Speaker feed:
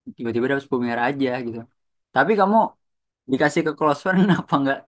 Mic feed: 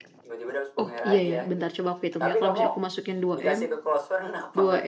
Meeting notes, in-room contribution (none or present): present